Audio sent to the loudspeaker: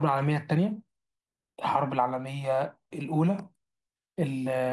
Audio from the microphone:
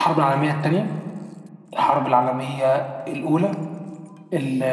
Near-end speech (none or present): none